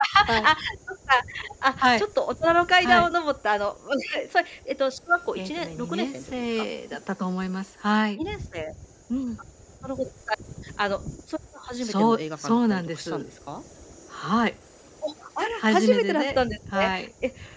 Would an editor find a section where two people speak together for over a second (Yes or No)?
Yes